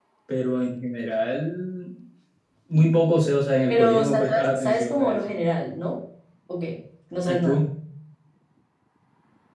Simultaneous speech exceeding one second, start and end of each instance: 3.7-5.2

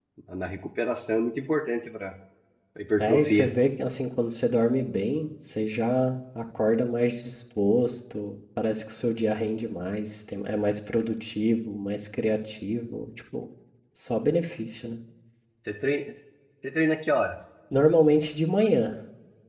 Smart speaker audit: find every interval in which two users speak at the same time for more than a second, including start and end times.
none

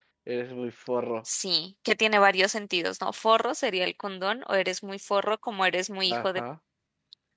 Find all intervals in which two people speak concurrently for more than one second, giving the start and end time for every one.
none

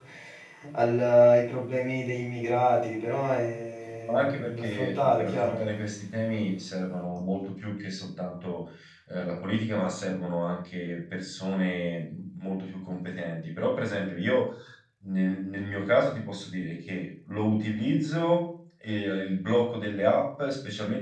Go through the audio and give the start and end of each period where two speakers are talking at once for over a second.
4.1-5.6

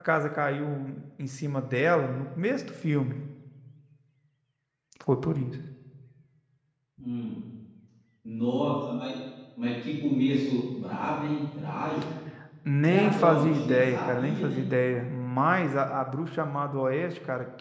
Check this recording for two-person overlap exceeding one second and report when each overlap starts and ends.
12.8-14.6

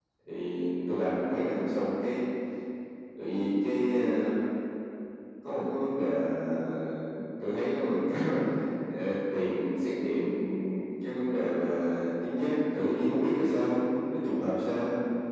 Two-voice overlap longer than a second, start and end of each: none

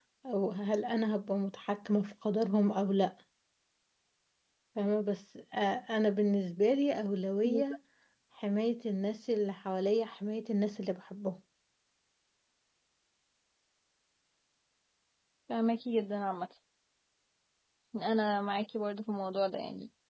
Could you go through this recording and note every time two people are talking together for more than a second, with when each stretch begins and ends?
none

